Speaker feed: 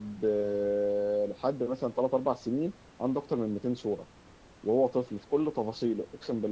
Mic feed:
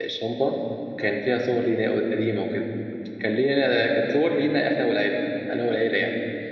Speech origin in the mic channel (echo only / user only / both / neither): user only